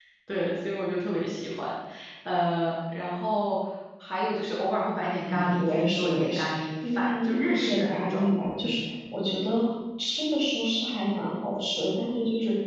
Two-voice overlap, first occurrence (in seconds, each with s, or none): 5.2 s